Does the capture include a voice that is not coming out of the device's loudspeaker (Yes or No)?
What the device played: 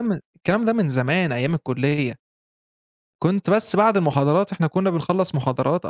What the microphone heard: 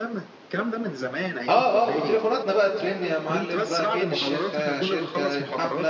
Yes